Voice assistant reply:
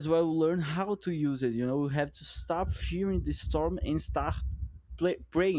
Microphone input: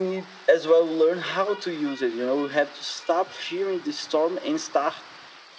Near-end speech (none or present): none